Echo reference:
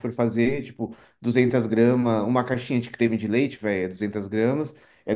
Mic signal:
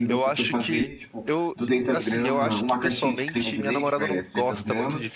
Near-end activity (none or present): present